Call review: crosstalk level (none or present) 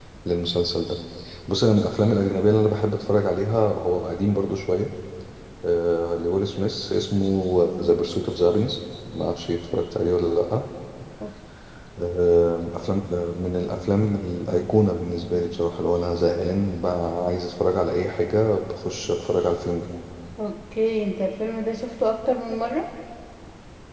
none